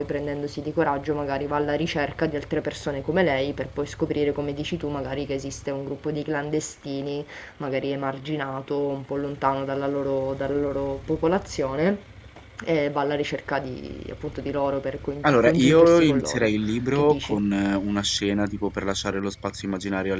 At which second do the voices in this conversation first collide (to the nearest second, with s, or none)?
15 s